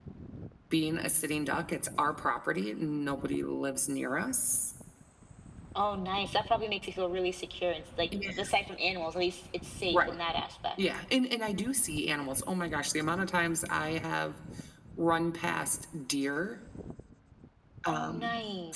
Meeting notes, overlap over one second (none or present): none